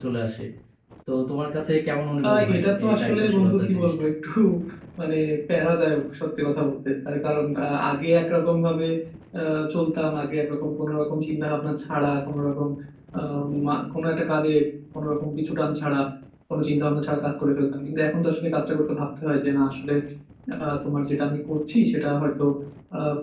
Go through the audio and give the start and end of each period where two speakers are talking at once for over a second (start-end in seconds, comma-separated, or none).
2.2-3.9